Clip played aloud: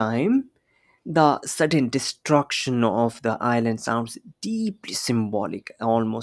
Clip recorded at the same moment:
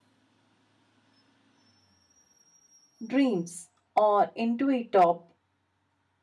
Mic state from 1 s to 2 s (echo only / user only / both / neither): neither